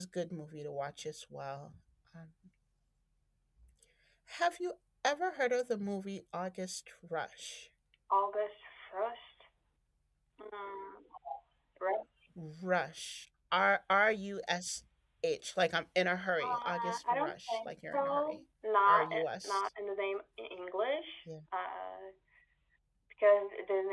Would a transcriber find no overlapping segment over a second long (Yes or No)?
No